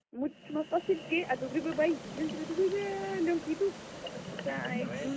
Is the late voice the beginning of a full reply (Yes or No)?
No